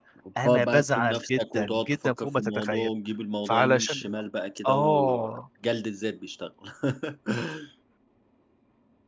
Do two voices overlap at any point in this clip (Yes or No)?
Yes